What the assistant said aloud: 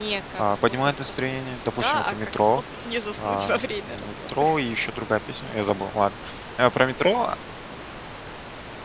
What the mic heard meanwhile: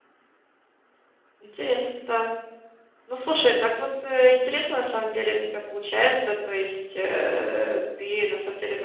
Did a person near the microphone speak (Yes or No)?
Yes